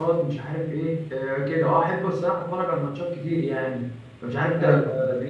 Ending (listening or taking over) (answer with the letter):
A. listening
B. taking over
A